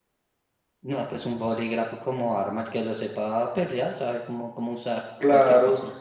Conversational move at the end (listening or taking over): taking over